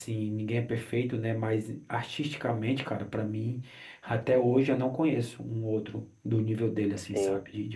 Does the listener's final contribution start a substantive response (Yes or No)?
Yes